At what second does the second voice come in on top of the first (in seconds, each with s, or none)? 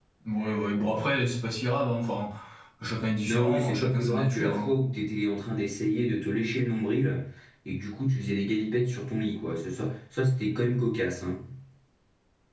3.3 s